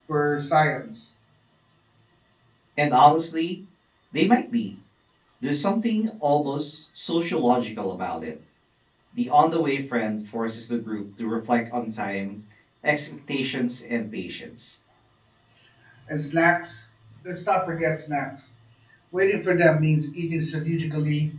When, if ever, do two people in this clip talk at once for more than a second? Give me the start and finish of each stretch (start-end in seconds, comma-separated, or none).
none